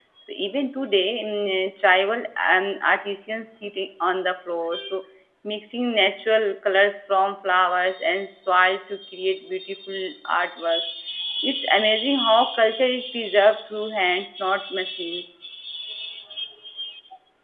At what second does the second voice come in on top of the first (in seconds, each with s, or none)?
none